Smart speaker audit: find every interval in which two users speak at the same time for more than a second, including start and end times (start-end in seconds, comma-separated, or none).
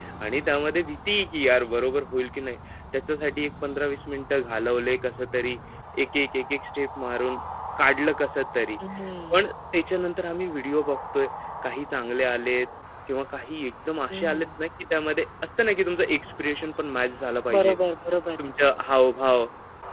none